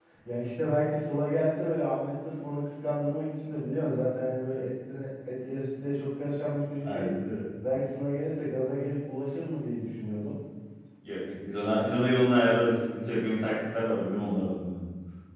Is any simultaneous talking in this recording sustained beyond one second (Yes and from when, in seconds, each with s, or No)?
No